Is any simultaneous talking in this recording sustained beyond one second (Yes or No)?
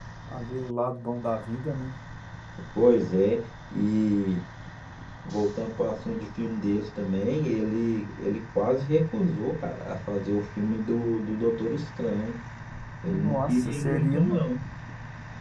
Yes